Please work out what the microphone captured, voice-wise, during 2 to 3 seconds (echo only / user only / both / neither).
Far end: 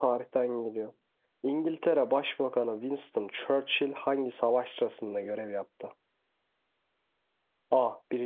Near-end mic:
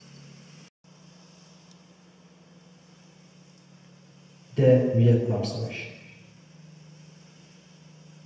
neither